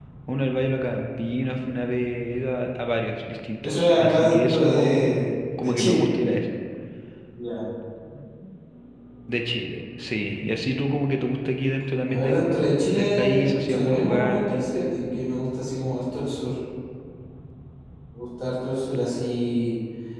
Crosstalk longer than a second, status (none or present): present